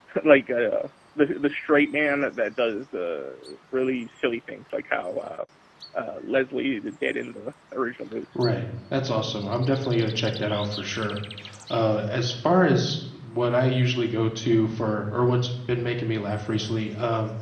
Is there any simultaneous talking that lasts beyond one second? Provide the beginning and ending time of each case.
none

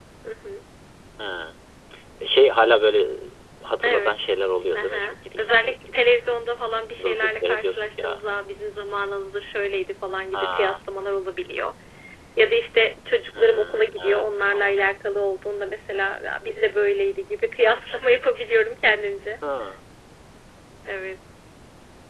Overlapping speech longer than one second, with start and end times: 4.8-6.0, 7.0-8.2, 13.4-14.8

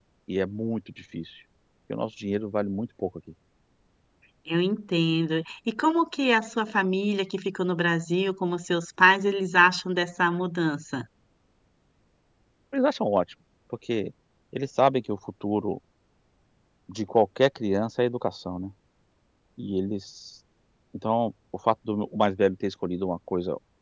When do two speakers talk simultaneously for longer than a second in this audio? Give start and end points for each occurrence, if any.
none

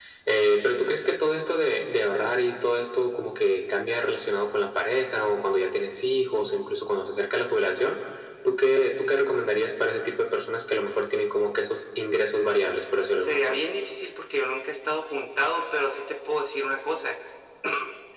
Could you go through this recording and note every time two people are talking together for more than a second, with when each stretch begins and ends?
none

